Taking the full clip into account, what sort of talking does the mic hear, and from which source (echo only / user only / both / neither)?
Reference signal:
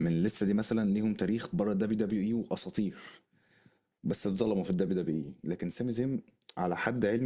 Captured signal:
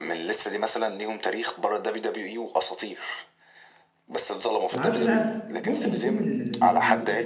both